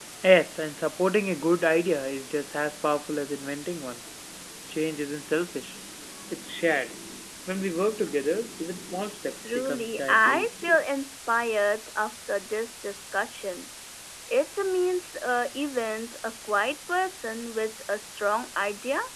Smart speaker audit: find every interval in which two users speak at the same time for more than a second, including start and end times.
9.4-10.7

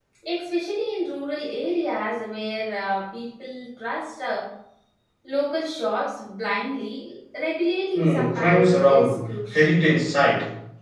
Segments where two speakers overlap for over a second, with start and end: 8.0-9.7

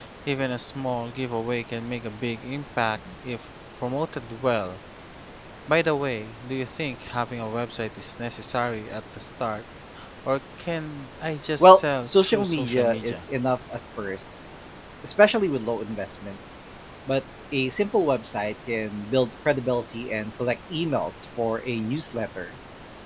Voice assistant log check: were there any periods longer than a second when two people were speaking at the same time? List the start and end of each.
11.6-13.2

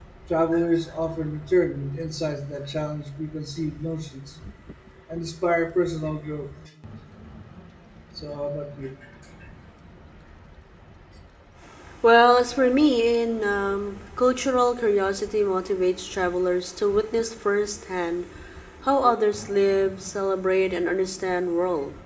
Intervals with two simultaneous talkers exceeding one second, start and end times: none

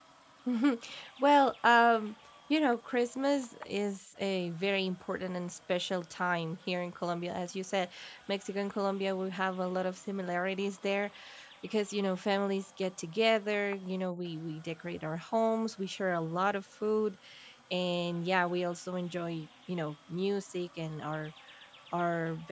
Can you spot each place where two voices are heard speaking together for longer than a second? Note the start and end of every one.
none

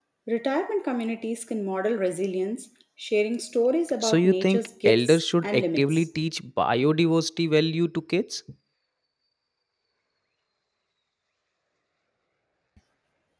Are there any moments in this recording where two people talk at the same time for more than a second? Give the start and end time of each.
4.0-6.0

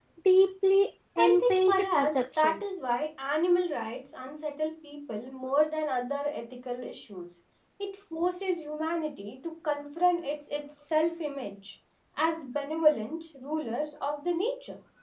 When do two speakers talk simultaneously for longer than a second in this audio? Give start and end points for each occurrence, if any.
1.2-2.6

